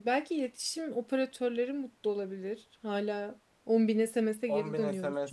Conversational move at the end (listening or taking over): taking over